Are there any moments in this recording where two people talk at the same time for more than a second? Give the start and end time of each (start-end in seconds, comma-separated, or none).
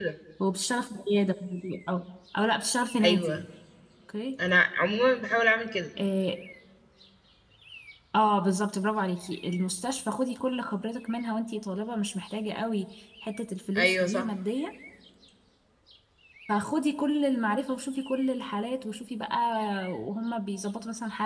none